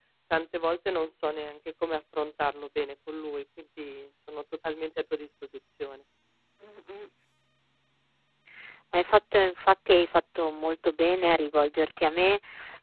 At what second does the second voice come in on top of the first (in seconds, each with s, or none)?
none